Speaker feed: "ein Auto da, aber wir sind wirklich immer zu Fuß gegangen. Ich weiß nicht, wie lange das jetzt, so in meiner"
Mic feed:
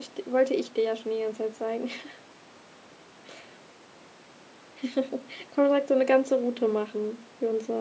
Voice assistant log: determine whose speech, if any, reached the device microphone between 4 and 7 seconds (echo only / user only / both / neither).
user only